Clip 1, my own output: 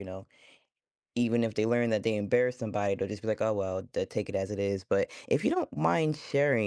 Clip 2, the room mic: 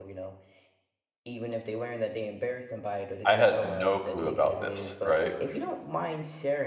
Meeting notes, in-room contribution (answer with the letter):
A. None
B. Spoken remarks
B